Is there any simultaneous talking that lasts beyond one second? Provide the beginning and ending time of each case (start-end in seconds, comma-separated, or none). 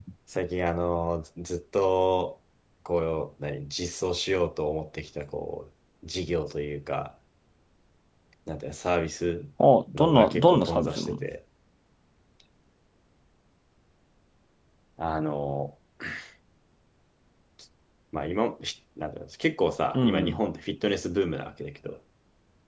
9.9-11.2